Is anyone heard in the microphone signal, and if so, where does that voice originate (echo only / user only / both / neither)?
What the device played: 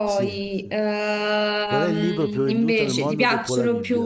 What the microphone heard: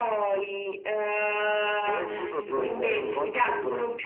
both